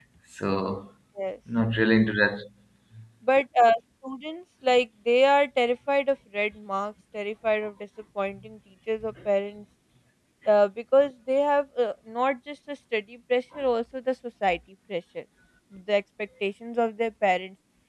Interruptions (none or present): none